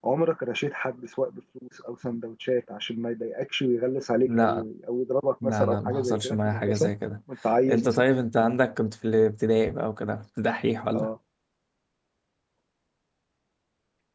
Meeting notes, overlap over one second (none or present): present